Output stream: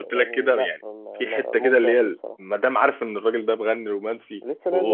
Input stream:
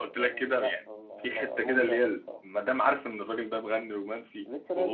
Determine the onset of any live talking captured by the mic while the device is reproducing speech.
none

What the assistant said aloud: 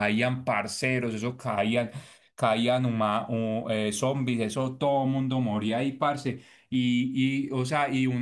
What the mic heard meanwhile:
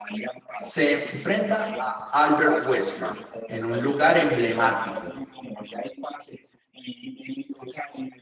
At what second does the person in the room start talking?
1 s

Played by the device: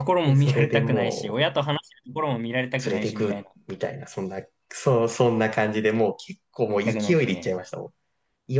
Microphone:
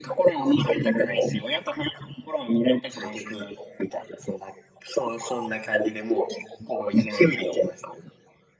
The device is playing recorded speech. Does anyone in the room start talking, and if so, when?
none

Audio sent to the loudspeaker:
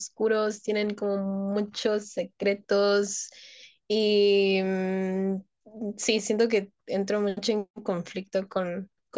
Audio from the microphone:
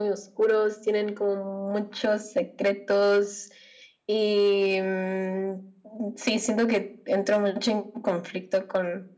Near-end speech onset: none

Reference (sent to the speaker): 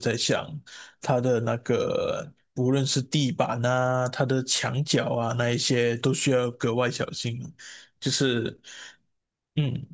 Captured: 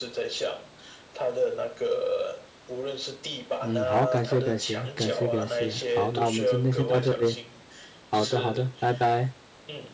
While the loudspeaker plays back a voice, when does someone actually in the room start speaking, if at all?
4 s

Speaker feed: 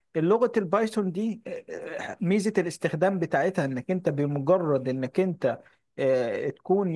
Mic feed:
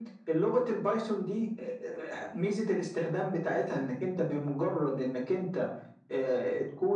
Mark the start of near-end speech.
none

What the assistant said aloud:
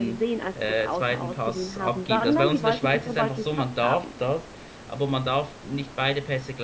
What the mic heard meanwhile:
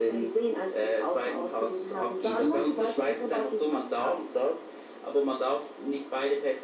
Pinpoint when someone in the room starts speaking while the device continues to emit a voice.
none

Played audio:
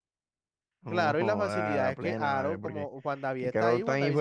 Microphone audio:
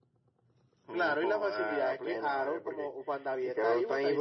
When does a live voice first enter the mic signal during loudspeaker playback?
none

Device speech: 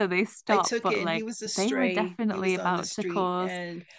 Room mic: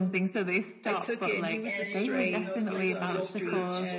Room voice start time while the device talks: 2 s

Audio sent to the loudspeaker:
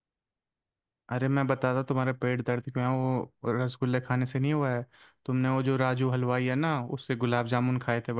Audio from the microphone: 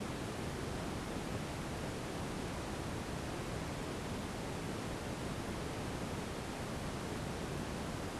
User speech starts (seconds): none

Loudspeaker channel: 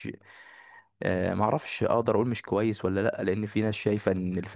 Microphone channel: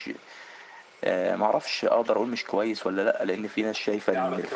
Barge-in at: 3 s

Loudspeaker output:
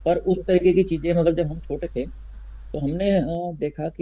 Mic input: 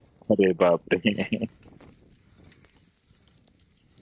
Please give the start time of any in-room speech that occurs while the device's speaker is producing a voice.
0 s

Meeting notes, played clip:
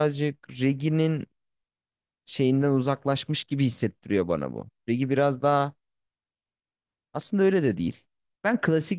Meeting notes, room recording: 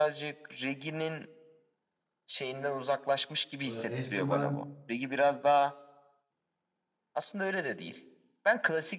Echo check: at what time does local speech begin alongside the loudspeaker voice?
4 s

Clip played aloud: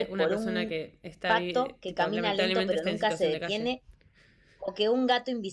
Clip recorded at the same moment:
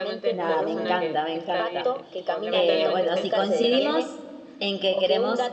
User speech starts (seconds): 0 s

